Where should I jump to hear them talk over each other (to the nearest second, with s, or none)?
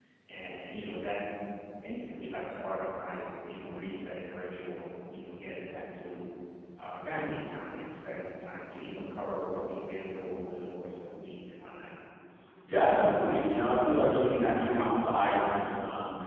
none